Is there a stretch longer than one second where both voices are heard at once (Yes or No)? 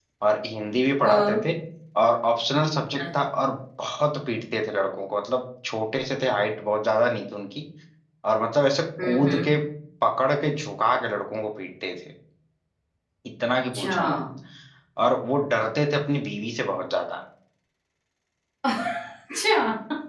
No